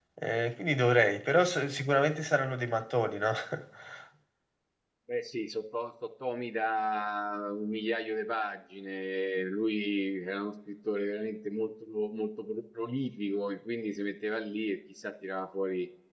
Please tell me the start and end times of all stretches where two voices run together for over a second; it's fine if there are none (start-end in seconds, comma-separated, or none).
none